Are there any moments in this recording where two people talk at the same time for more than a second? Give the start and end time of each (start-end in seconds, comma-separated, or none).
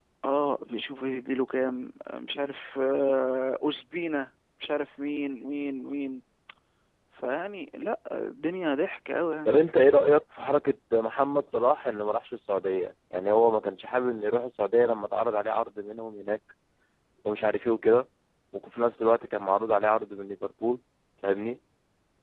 none